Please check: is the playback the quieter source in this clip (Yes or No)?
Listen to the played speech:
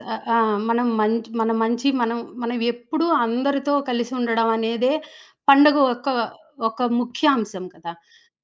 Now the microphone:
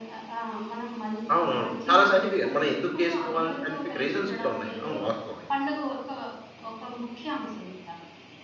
Yes